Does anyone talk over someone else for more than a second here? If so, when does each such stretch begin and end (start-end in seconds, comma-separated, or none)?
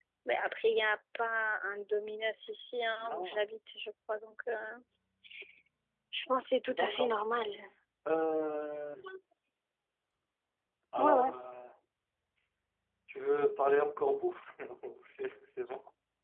none